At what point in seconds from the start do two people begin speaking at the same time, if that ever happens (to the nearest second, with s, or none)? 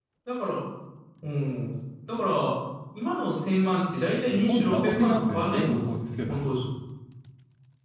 4 s